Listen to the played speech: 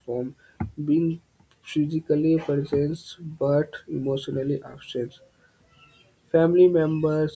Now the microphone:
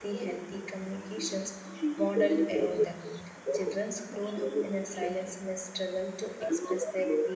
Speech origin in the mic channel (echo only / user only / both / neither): both